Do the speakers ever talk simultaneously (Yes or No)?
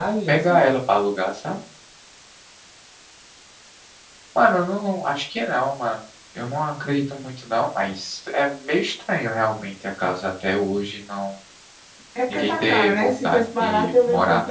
Yes